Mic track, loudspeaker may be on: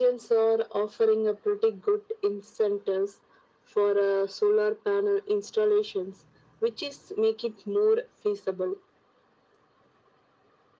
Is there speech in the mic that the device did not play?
No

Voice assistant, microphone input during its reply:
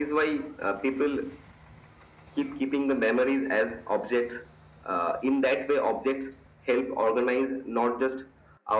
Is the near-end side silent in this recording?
Yes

